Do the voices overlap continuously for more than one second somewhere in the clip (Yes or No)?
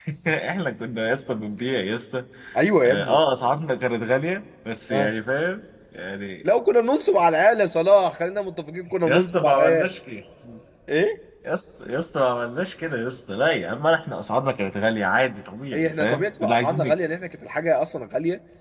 Yes